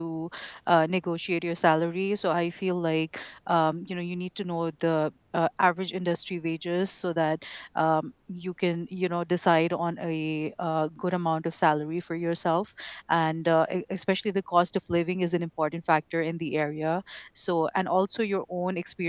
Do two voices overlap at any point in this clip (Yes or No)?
No